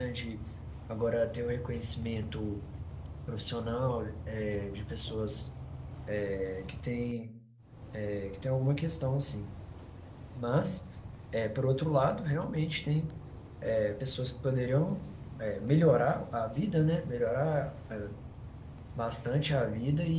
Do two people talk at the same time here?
No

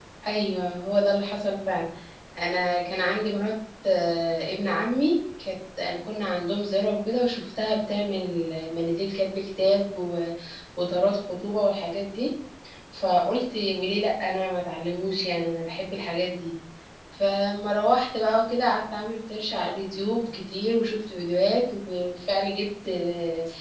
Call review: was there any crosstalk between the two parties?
No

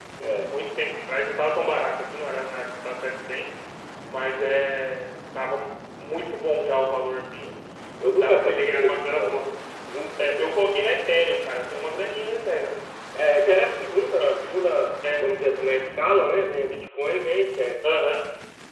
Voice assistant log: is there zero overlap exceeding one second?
No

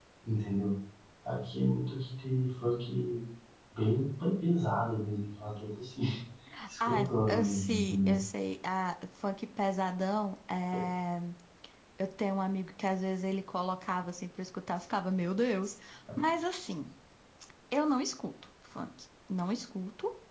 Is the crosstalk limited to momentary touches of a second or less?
No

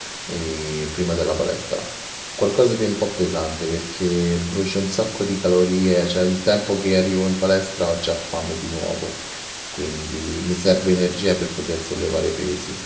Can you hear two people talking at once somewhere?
No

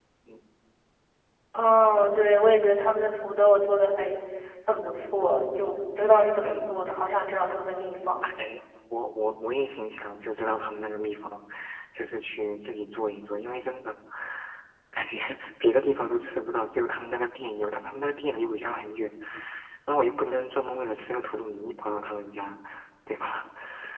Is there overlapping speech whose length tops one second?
No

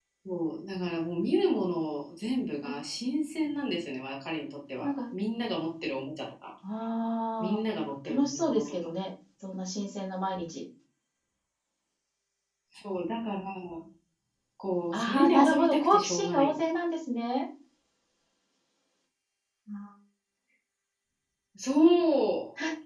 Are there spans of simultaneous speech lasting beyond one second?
Yes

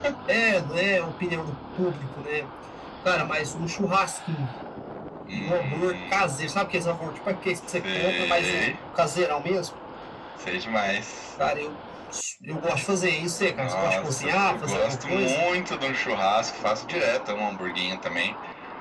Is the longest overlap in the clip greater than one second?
Yes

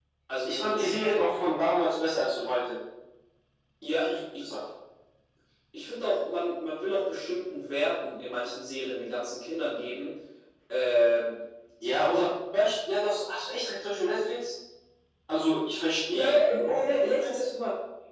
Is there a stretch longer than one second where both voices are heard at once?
Yes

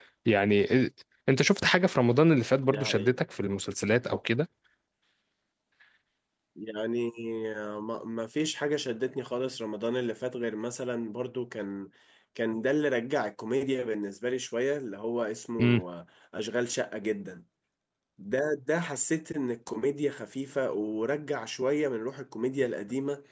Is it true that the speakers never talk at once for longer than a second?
Yes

